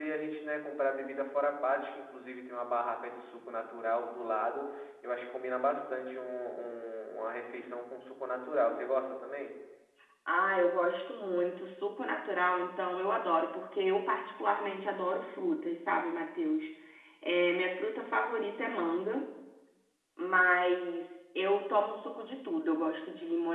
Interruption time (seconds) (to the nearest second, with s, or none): none